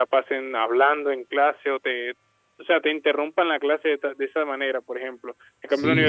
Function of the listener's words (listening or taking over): listening